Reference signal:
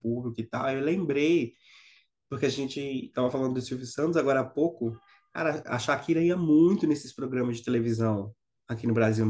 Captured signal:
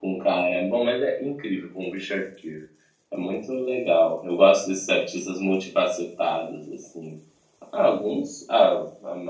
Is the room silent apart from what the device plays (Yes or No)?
No